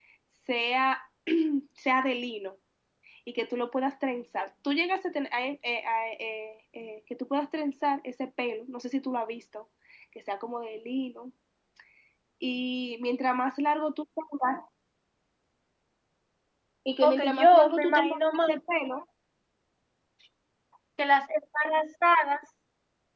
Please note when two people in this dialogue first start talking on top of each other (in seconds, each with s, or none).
17.0 s